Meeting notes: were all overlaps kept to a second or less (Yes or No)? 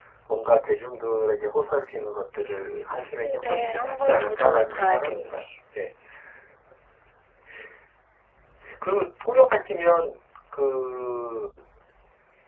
No